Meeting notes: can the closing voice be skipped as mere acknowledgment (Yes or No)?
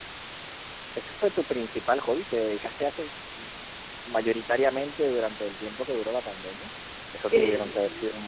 Yes